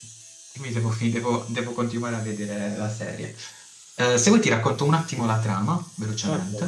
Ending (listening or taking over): taking over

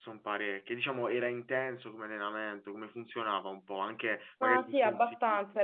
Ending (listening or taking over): taking over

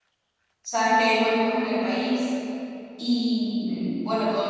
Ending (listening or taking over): listening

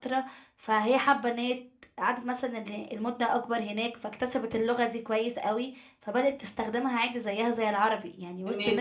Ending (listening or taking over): taking over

